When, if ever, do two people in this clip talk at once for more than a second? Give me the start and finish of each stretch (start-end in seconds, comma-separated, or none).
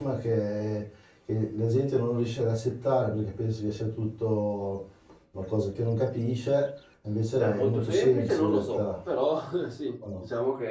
7.4-8.8